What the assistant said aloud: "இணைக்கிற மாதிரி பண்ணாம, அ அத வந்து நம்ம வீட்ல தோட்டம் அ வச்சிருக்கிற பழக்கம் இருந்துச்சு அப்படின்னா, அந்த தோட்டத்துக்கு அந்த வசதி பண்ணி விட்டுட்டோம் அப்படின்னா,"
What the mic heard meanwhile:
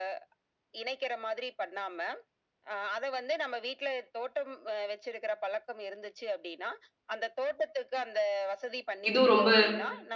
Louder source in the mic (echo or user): user